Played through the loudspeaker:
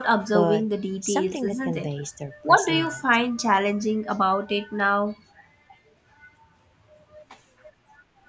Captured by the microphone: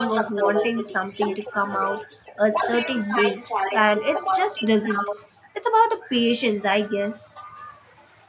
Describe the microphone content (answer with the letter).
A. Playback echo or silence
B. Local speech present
B